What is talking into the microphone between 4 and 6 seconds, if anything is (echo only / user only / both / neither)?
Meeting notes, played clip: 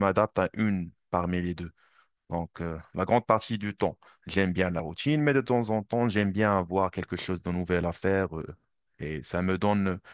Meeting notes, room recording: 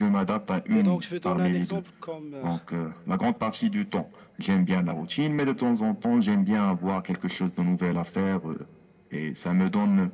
echo only